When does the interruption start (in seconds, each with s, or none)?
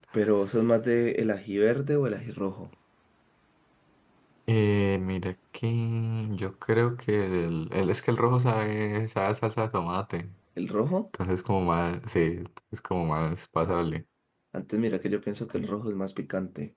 none